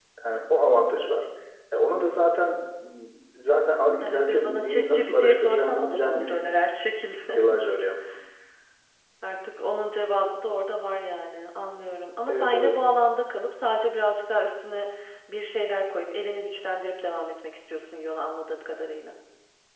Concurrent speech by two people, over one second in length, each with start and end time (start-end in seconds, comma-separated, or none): 4.0-6.5